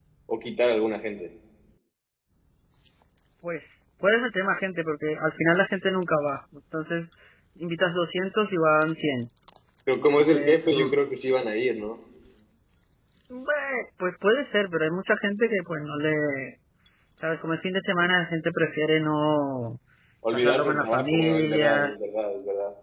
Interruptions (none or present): present